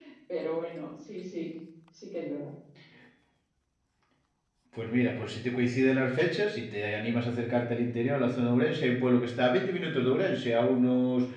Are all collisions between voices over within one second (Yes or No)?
Yes